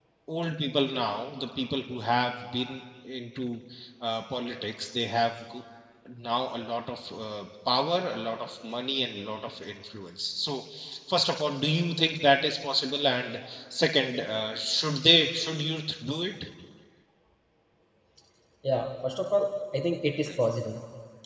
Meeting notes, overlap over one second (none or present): none